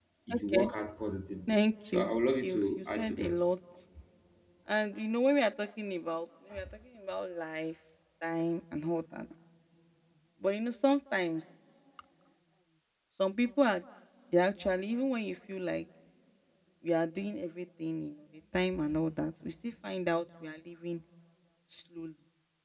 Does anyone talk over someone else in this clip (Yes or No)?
Yes